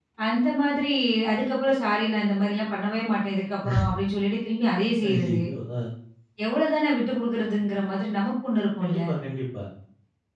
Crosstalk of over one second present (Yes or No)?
No